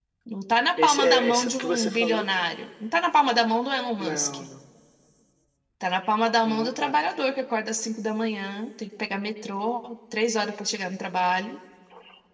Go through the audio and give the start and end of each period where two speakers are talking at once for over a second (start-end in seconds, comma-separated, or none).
0.8-2.2